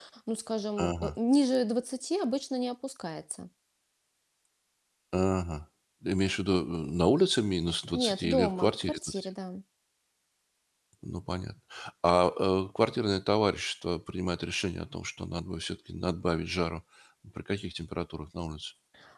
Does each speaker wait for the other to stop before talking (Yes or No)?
No